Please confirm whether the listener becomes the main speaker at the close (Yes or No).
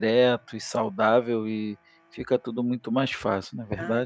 Yes